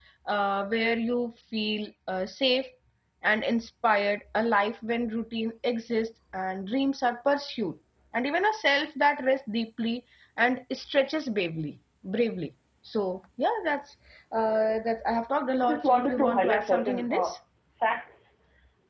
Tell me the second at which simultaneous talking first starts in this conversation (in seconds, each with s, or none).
15.6 s